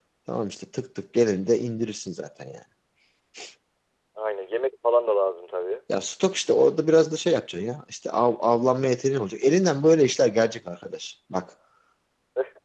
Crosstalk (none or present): none